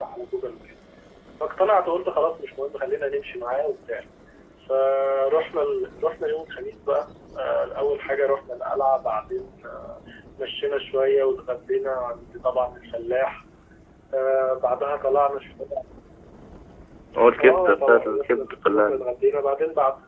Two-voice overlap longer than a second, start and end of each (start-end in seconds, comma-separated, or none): 17.4-19.0